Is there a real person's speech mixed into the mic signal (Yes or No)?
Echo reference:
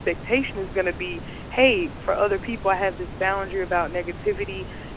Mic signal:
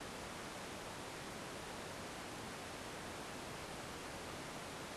No